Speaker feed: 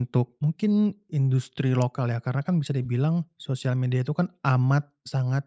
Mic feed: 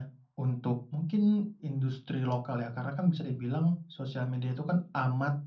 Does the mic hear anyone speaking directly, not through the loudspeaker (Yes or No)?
No